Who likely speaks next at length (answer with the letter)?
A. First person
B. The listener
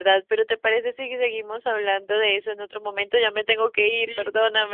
B